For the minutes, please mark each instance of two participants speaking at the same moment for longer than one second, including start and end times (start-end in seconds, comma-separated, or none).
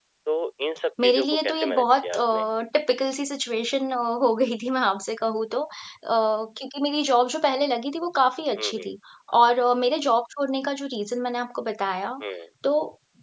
1.0-2.5